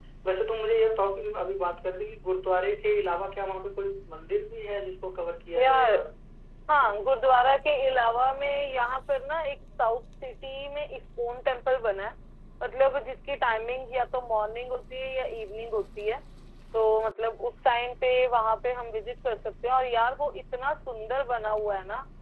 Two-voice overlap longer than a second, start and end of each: none

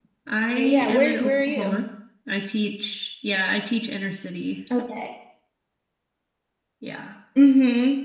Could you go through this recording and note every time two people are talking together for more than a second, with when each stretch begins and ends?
0.6-1.9

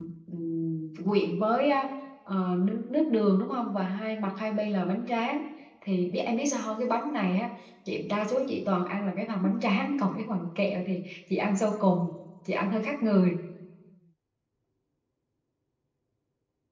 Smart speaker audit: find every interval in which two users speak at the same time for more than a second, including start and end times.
none

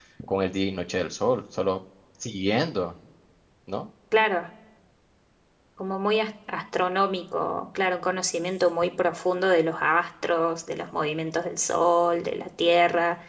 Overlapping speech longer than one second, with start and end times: none

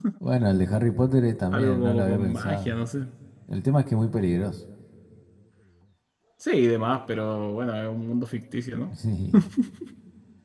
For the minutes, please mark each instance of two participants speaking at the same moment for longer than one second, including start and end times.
1.5-2.8

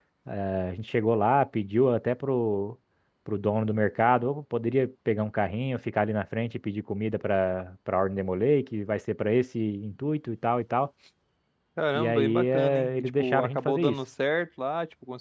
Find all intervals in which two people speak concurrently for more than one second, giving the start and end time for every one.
11.9-13.9

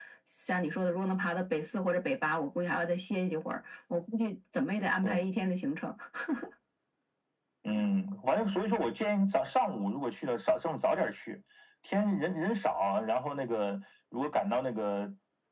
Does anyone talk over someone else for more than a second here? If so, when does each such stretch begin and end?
none

